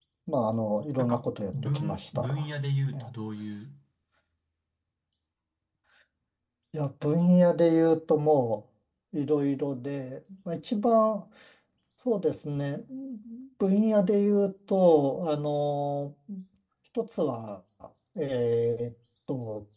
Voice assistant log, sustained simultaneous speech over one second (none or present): present